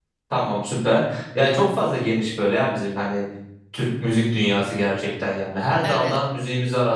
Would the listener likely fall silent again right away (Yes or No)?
Yes